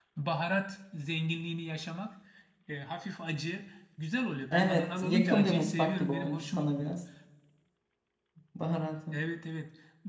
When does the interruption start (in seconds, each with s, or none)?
4.5 s